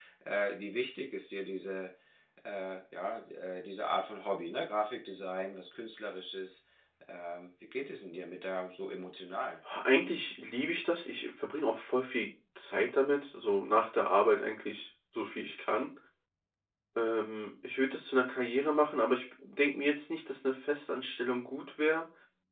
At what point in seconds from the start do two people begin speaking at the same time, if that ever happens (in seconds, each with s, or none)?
none